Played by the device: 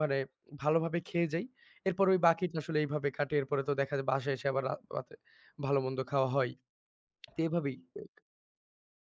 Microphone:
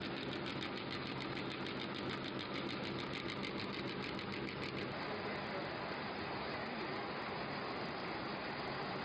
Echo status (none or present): none